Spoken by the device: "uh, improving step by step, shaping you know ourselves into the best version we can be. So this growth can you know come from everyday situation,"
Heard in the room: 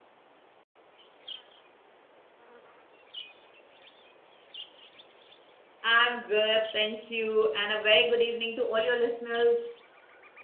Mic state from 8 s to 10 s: user only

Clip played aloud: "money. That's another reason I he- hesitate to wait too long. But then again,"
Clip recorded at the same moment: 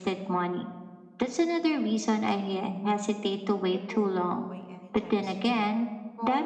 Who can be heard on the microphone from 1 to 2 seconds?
echo only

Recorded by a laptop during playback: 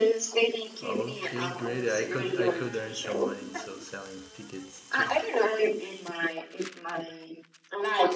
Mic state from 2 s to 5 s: both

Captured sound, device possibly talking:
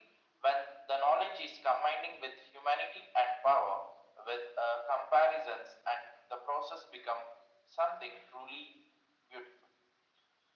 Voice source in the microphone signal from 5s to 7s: echo only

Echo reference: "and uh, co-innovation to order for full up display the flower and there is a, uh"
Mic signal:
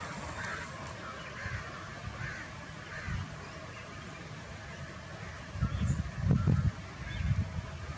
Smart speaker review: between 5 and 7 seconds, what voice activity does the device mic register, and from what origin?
neither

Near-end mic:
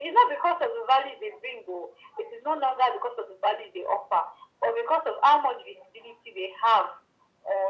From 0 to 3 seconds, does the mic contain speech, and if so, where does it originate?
echo only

